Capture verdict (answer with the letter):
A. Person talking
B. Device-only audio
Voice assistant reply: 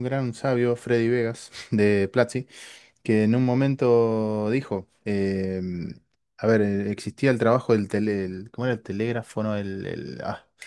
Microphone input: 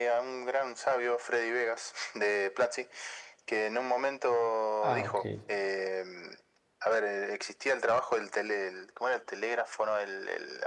A